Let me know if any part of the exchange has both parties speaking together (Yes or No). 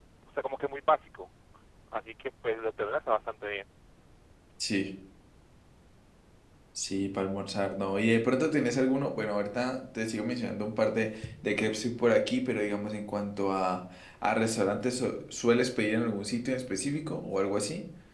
No